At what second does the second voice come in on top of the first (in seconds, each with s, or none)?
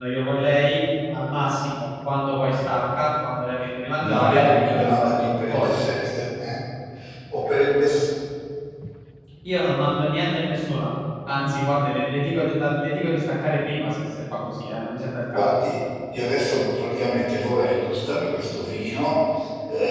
4.0 s